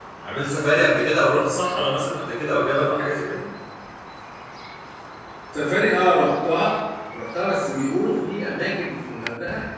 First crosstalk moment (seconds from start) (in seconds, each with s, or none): none